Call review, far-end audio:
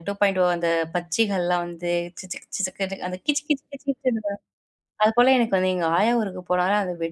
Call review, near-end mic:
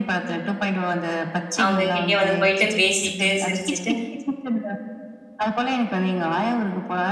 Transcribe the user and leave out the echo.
அவங்க கிட்டயே வந்து போயிட்டு பேசிட்டு, சிரிச்சுட்டு,

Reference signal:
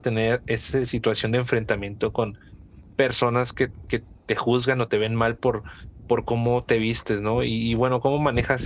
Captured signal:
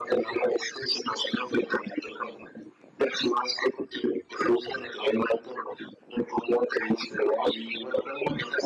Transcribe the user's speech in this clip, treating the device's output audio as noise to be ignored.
none

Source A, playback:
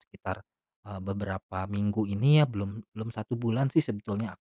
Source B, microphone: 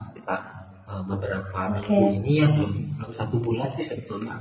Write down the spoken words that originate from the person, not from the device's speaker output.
oke

